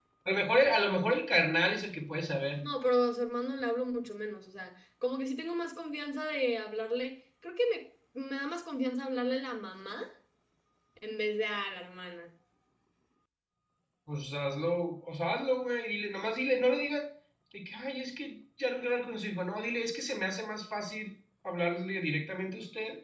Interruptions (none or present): none